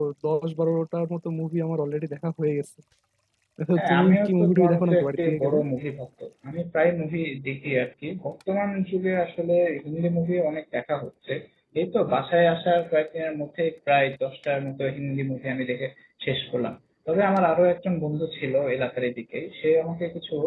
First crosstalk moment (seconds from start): 4 s

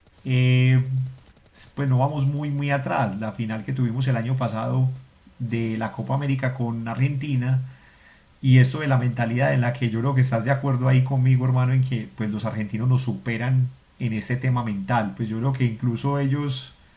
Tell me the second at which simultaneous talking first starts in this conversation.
none

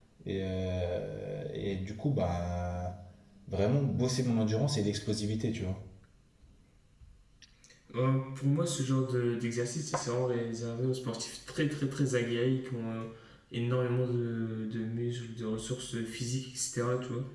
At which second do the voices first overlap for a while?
none

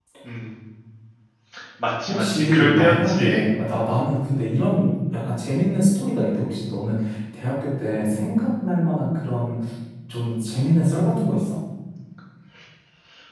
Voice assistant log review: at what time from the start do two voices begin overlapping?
2 s

